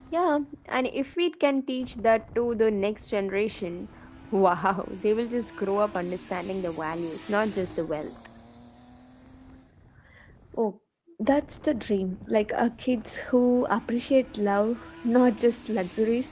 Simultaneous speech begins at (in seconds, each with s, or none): none